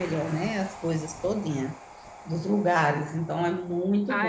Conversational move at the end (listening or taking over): taking over